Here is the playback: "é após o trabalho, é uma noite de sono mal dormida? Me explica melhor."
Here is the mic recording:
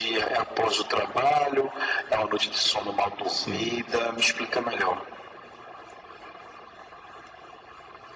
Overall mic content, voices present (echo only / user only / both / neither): both